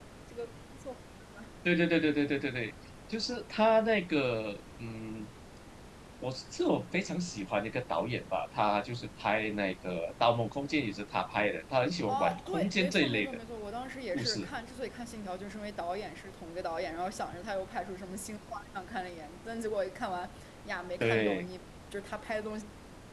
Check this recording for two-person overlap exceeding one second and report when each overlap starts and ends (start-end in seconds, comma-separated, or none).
12.1-13.4